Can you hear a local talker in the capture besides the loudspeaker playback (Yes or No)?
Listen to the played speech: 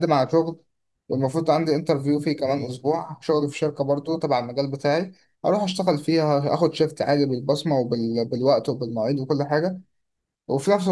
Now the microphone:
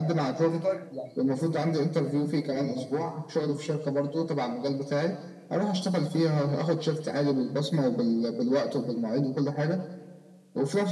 Yes